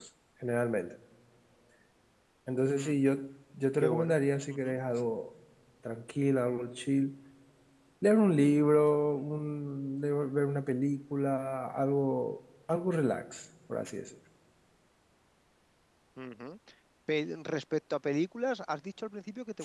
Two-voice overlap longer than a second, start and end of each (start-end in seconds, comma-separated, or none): none